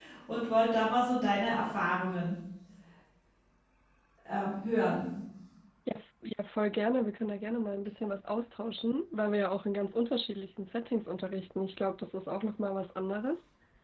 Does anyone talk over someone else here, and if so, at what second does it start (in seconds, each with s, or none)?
none